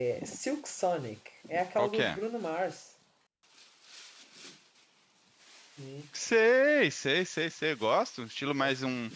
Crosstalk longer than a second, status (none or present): none